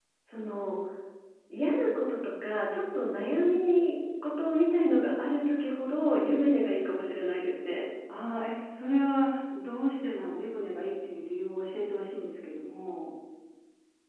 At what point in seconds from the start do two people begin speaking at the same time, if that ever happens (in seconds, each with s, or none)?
none